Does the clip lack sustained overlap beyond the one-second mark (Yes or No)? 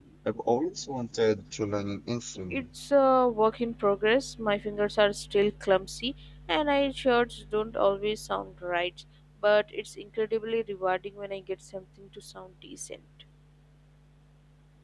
Yes